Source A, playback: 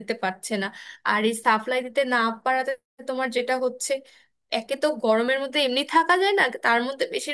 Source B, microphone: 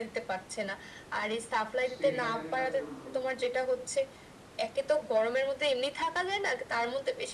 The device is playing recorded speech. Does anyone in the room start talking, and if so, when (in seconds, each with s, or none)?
1.9 s